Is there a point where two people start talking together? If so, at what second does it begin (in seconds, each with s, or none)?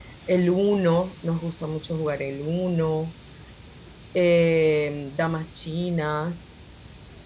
none